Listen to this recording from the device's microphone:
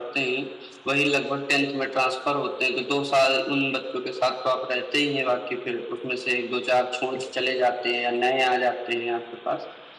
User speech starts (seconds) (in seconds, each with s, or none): none